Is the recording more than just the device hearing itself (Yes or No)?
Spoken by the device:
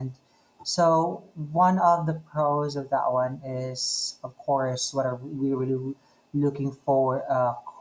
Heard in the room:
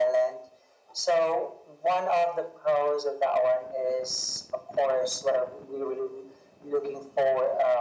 No